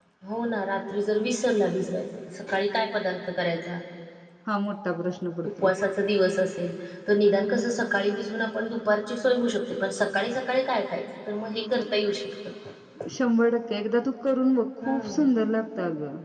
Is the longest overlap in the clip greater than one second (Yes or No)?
No